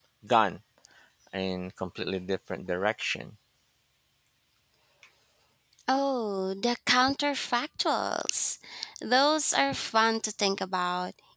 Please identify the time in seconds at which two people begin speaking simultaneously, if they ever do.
none

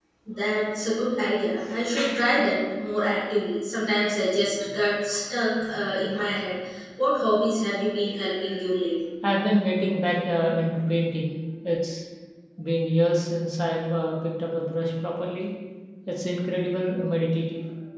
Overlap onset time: none

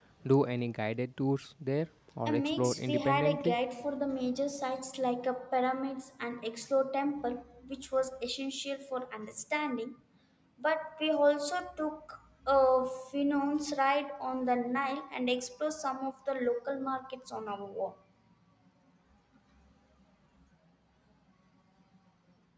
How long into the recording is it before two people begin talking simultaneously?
2.3 s

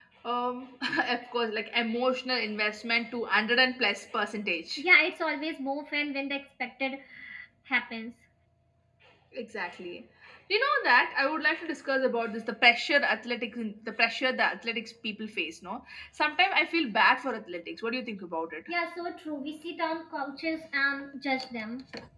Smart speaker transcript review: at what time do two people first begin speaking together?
none

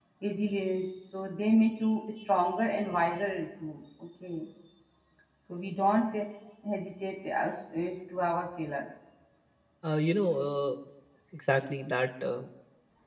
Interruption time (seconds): none

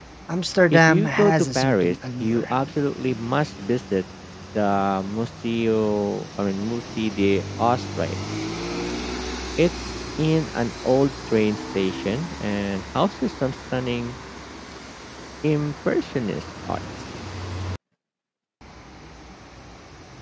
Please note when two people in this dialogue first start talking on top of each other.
0.7 s

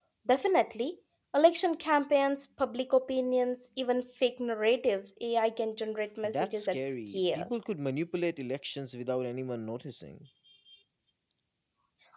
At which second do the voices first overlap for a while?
6.2 s

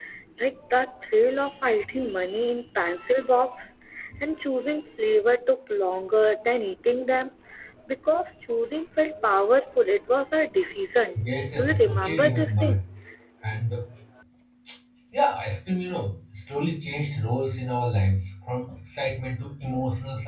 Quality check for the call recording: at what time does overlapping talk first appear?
11.6 s

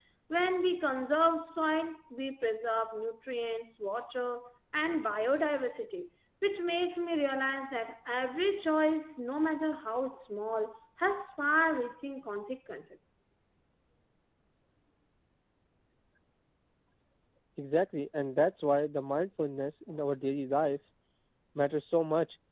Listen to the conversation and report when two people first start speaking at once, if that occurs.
none

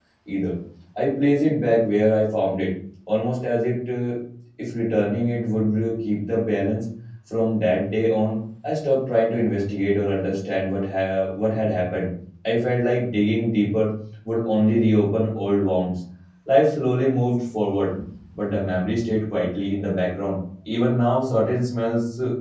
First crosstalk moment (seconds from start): none

